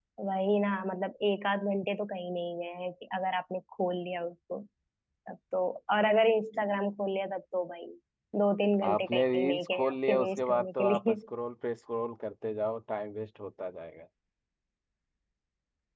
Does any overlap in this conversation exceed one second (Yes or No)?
Yes